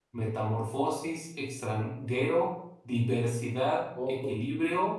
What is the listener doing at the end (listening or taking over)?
listening